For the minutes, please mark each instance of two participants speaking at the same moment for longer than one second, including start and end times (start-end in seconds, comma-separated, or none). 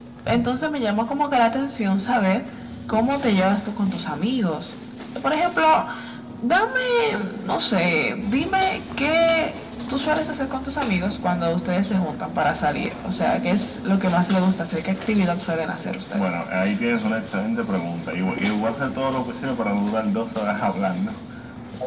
none